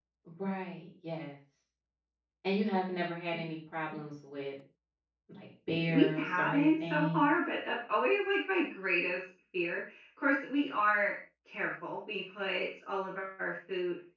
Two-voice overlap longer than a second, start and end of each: 5.9-7.2

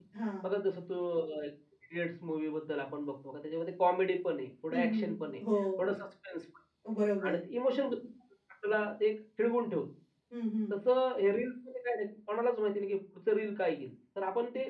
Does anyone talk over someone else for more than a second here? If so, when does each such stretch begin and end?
none

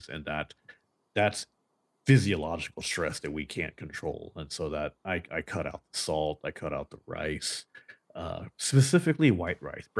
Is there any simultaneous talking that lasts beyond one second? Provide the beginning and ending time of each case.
none

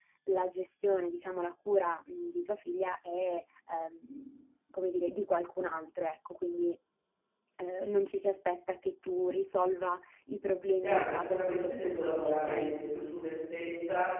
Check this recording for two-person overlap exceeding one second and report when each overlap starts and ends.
10.8-12.7

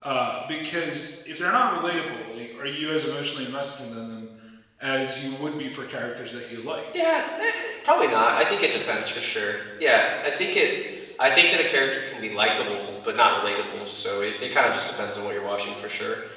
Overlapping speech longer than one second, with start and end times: none

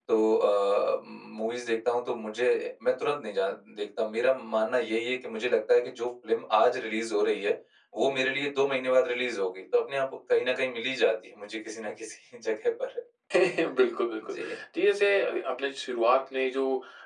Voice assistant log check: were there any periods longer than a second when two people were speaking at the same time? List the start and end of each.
none

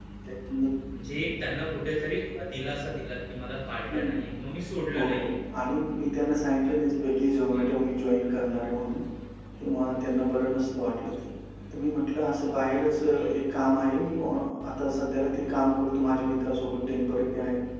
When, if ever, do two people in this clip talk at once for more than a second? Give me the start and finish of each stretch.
none

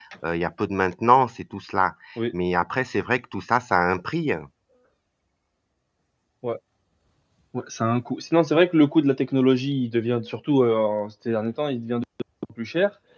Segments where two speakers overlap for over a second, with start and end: none

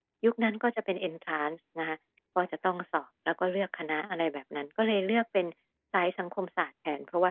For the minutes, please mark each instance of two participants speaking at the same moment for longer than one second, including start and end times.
none

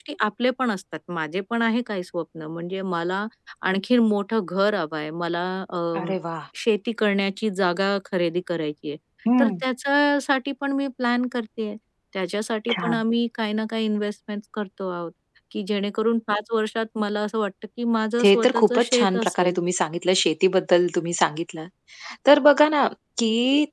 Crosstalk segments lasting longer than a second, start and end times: 18.2-19.5

